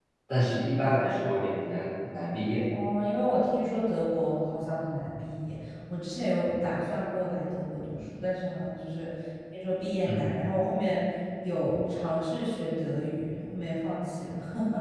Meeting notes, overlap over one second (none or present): none